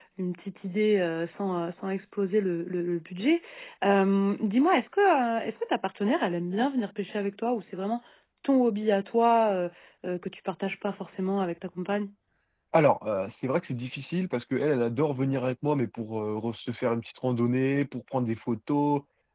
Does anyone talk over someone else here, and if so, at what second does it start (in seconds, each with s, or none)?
none